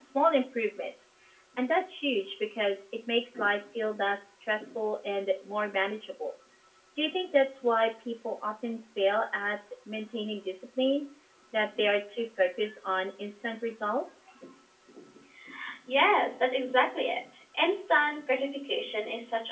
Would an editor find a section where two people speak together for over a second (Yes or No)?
No